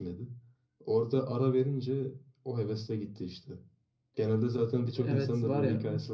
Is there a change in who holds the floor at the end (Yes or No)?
Yes